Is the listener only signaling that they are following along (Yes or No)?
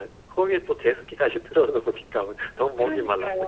No